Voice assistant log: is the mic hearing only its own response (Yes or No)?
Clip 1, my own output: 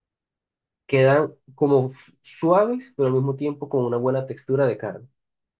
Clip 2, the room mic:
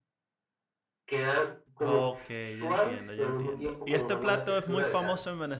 No